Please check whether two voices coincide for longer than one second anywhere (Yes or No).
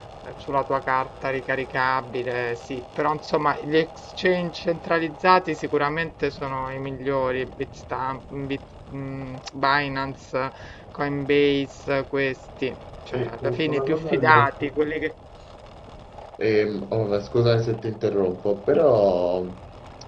Yes